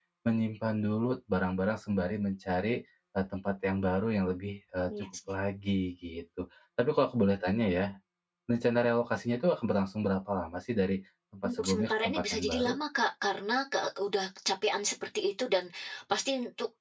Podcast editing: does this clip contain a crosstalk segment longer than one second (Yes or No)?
Yes